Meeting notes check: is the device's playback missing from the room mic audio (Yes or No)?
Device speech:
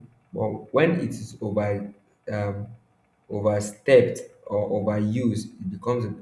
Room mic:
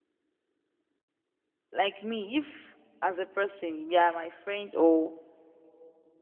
Yes